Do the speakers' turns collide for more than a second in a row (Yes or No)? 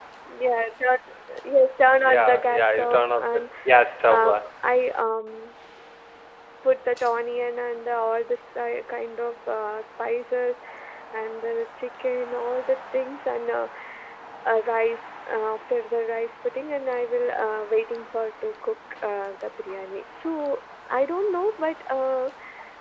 Yes